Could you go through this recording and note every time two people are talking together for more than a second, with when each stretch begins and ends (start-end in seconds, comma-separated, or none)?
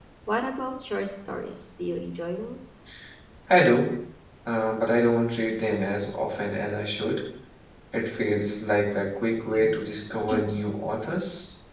none